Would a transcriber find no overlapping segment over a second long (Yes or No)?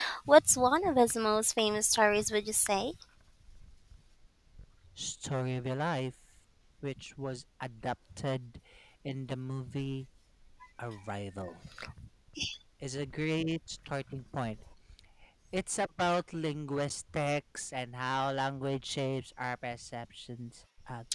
Yes